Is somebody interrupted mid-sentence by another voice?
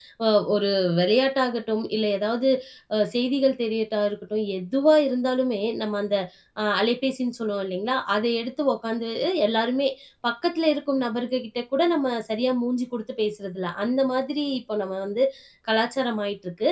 No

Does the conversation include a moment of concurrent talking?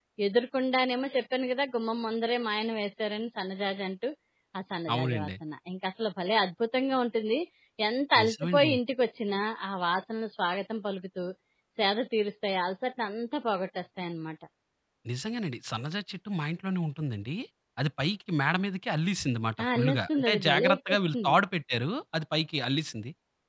Yes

